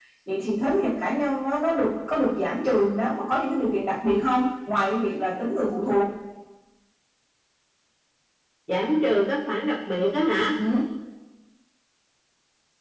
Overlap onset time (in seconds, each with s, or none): none